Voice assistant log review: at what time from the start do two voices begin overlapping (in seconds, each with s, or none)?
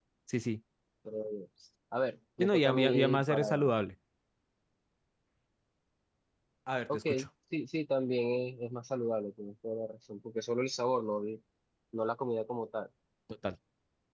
2.4 s